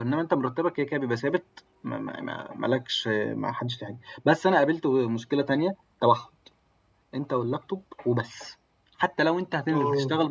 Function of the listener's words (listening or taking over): listening